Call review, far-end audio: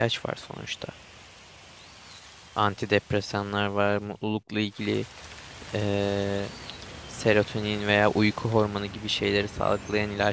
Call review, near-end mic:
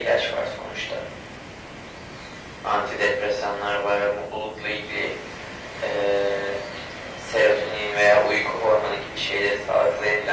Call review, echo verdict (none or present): present